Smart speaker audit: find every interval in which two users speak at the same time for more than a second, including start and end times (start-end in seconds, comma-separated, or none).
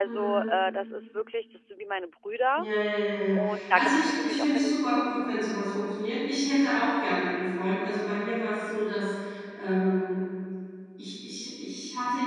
3.3-5.3